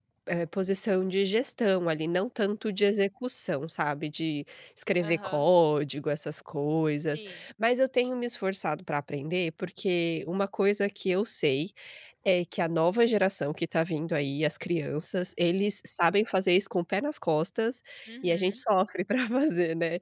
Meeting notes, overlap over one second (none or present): none